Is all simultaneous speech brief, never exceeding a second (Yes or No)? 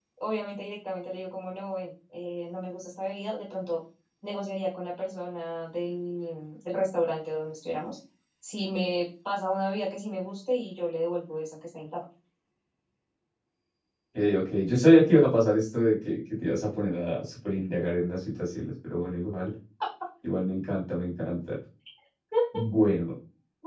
Yes